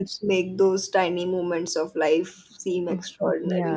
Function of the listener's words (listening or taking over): taking over